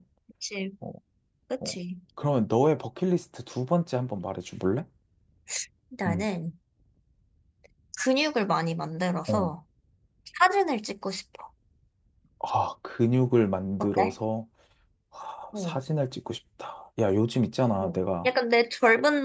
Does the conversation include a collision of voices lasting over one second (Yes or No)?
No